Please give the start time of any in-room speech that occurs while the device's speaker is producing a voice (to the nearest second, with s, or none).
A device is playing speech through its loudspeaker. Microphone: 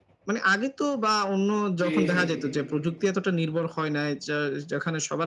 2 s